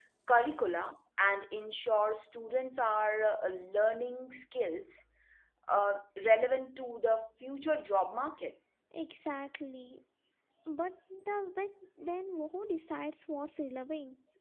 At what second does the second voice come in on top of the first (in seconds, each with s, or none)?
none